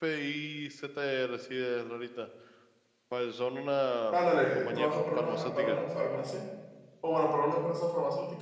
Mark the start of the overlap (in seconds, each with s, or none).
4.6 s